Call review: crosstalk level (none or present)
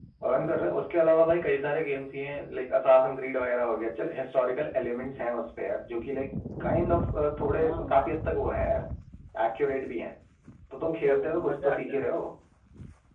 present